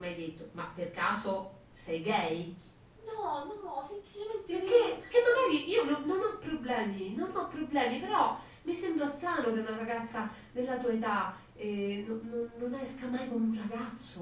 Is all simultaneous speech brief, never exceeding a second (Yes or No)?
Yes